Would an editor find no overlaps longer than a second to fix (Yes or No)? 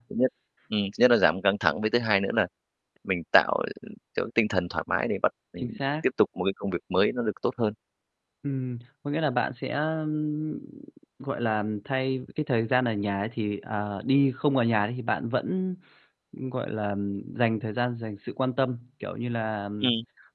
Yes